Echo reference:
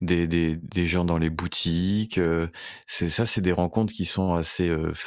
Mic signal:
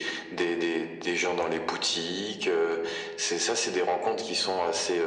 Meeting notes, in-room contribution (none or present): none